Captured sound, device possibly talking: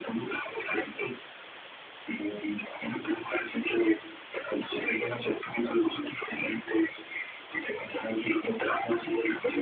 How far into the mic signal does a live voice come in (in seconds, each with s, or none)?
none